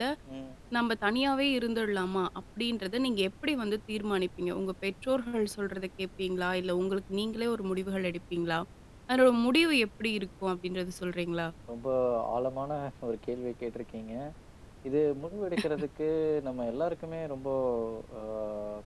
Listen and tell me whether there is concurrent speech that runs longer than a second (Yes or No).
No